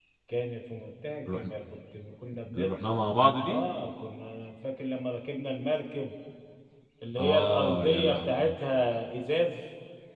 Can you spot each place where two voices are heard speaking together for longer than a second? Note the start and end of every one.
7.2-8.5

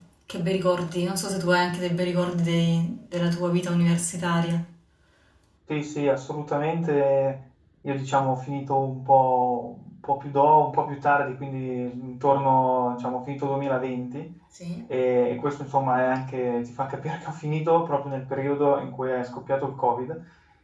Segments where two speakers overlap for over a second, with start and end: none

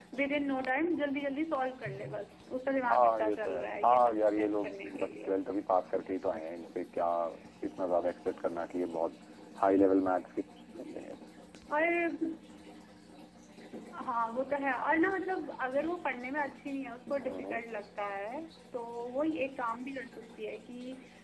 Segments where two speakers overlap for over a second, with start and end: 2.9-5.3

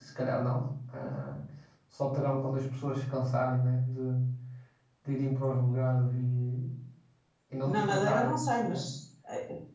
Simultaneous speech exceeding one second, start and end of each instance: 7.7-8.9

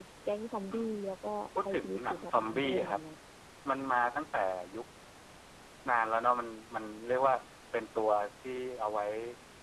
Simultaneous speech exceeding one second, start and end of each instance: 1.6-3.0

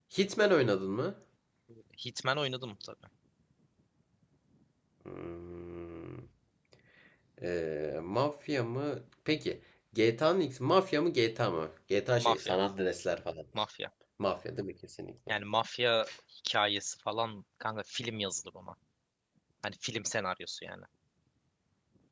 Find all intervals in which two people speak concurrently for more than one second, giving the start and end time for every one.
none

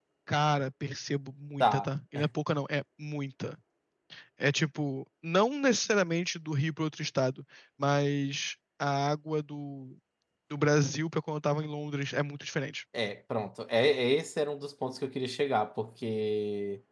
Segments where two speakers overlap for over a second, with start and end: none

